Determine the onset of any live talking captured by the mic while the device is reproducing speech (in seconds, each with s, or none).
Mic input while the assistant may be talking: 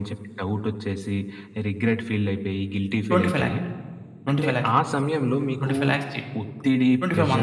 3.1 s